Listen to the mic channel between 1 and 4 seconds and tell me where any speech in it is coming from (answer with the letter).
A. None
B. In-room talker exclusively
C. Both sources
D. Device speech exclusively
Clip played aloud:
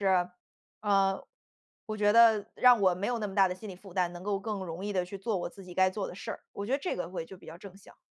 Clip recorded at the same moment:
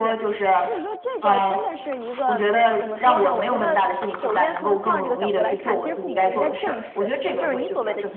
C